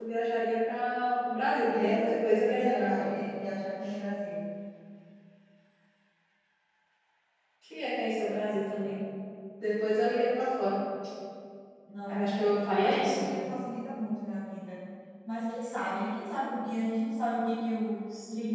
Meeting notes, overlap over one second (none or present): present